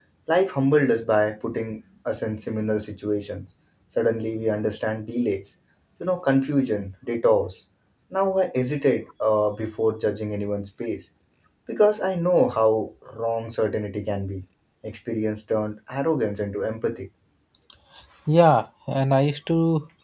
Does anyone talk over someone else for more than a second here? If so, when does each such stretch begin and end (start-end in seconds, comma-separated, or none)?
none